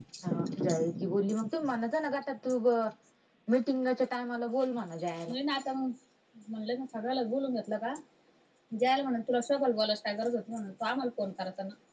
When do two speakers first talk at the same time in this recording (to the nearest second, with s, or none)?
none